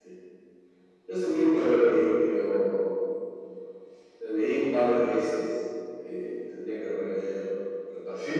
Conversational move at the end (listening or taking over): taking over